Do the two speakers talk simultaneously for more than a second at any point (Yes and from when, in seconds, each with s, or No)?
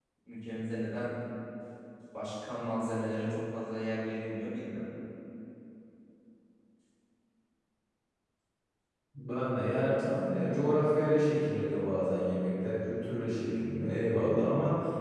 No